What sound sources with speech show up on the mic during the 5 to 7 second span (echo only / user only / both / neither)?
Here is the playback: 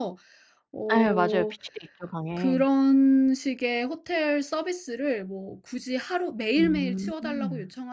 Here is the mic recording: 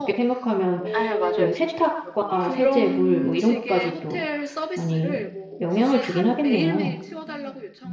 both